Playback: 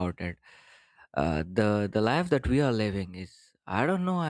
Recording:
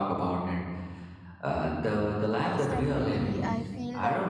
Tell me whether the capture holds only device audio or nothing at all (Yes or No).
No